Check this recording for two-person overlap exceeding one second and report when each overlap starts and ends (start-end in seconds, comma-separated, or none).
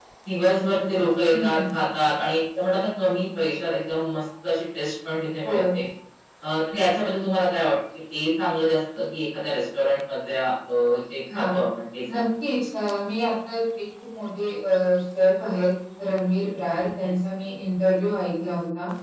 none